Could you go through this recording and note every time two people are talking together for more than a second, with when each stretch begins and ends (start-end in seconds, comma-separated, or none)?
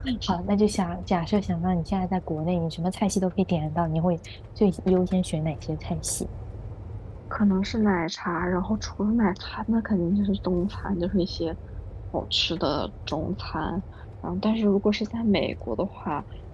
none